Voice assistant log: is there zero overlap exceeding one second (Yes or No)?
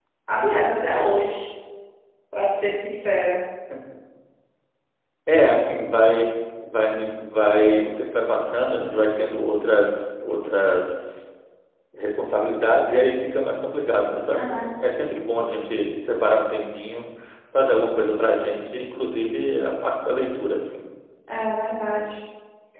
Yes